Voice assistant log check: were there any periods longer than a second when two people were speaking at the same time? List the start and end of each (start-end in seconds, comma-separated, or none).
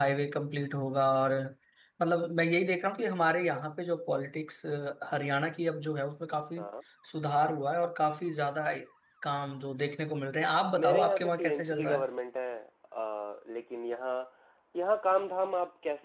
10.8-12.1